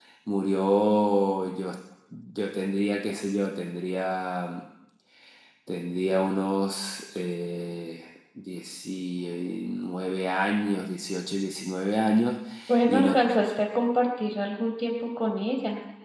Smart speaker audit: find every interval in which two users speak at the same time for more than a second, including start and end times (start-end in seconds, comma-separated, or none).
none